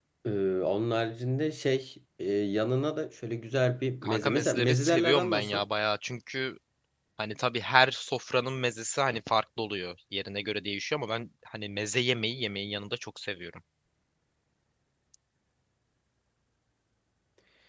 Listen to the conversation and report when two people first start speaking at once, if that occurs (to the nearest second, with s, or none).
4 s